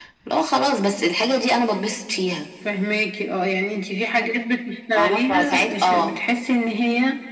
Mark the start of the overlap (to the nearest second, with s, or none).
5 s